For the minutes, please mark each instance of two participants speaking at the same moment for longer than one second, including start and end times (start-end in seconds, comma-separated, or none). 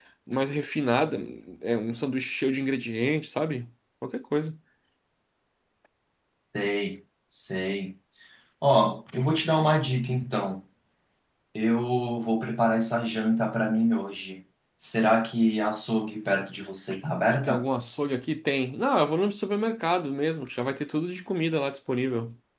none